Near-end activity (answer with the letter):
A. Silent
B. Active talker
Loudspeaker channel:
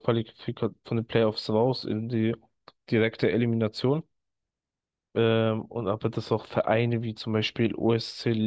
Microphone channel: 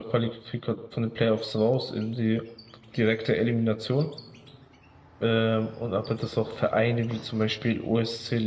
A